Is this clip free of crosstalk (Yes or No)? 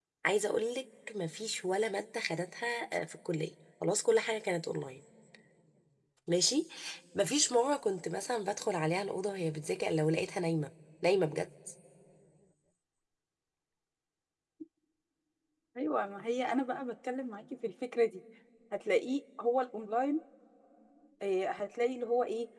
Yes